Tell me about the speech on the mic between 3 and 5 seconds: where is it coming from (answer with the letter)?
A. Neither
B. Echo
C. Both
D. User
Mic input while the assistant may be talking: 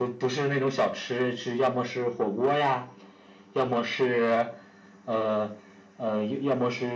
B